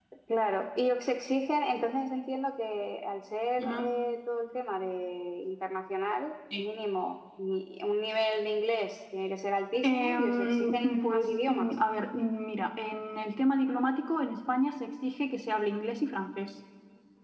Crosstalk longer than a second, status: present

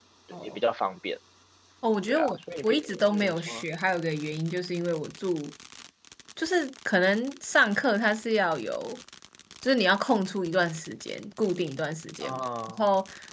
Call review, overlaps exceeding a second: present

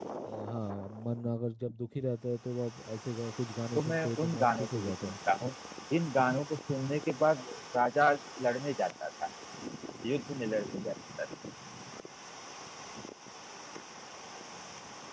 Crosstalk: present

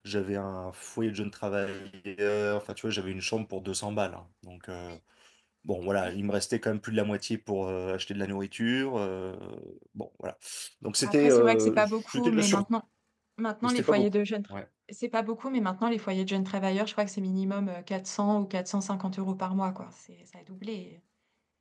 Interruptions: present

